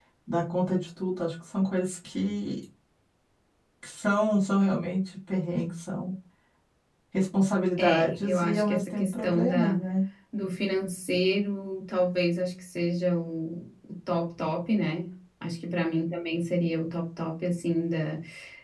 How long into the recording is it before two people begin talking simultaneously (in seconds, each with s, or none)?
7.8 s